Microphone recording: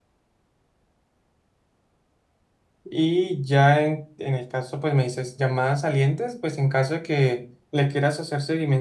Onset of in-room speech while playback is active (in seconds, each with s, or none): 2.9 s